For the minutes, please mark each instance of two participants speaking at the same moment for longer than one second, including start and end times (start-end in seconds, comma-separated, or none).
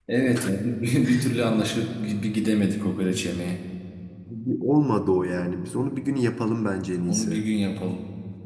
none